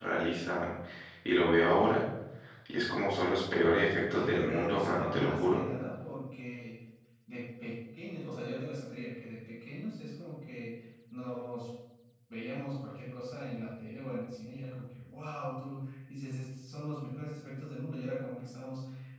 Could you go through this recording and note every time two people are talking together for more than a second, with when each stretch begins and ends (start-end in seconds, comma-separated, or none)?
4.1-5.6